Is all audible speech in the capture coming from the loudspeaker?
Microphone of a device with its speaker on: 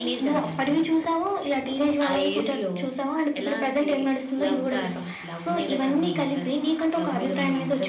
Yes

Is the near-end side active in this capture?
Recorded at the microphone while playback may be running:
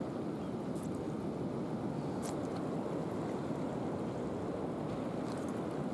No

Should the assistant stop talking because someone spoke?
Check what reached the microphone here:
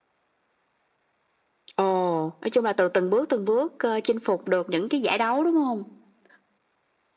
No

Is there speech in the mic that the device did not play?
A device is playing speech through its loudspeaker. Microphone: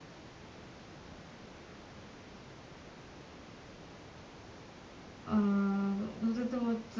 Yes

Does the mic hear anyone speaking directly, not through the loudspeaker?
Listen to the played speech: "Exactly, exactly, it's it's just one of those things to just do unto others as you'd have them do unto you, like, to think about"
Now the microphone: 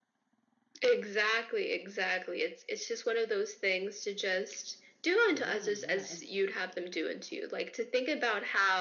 Yes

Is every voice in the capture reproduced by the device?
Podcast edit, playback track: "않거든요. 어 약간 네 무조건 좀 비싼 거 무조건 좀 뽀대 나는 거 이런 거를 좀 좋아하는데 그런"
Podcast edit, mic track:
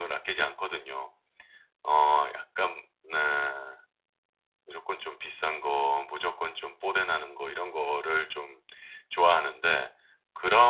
Yes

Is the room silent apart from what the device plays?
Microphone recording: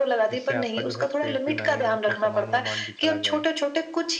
No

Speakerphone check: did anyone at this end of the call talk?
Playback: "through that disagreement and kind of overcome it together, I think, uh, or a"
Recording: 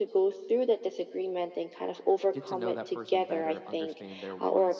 Yes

